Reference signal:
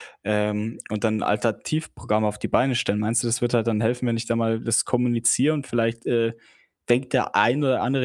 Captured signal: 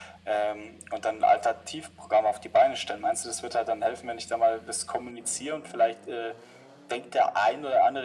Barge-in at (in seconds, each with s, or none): none